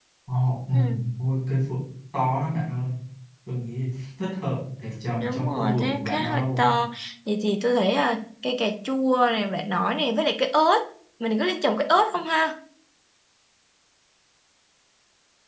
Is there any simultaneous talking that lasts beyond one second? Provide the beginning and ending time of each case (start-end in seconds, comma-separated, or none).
5.2-6.7